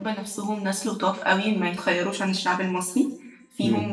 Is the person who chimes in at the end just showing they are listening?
Yes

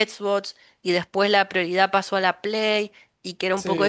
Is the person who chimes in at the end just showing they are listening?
Yes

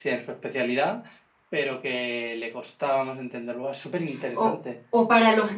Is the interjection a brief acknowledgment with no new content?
No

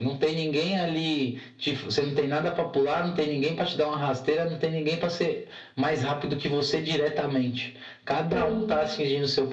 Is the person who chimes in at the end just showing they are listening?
Yes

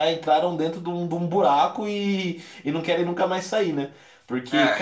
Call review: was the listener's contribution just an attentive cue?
Yes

